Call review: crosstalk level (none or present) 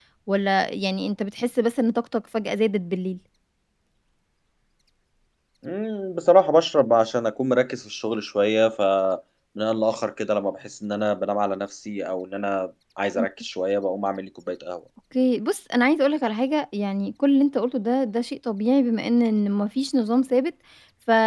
none